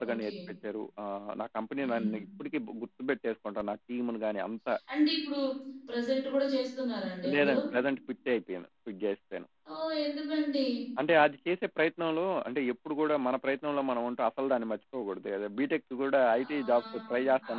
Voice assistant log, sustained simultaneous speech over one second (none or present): present